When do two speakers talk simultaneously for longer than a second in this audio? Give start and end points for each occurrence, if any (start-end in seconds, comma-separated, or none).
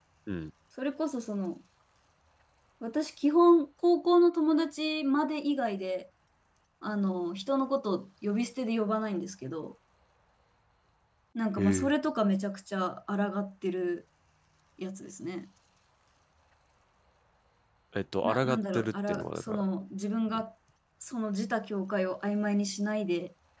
18.2-19.6